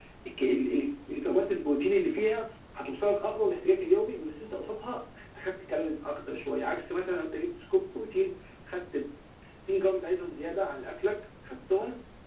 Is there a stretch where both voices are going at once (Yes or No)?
No